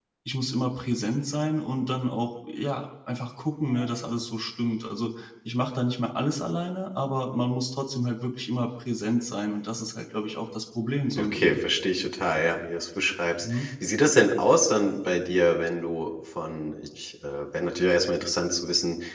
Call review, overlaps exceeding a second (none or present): none